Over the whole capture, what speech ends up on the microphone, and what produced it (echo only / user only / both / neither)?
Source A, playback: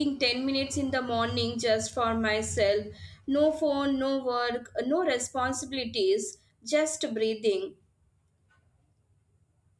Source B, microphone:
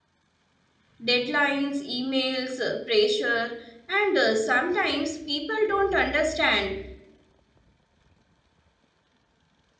user only